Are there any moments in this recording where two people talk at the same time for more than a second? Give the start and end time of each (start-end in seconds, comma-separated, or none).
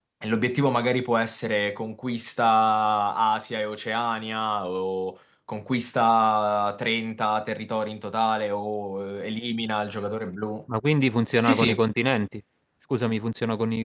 none